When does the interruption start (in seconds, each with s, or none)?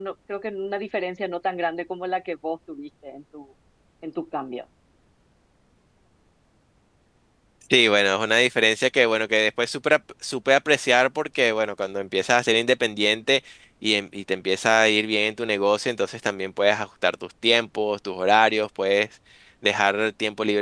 none